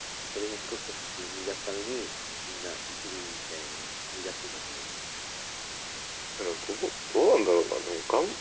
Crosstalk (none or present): none